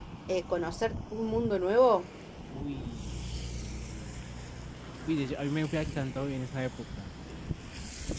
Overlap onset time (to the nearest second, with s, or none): none